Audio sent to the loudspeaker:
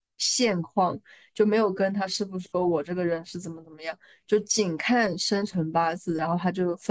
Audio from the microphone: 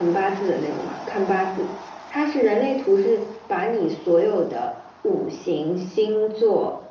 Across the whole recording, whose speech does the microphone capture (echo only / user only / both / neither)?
user only